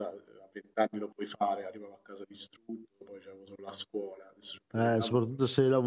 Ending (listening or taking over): taking over